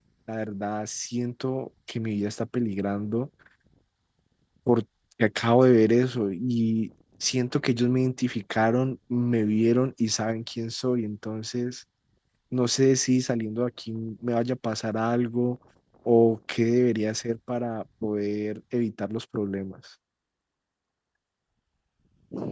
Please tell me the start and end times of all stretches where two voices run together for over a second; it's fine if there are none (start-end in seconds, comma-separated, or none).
none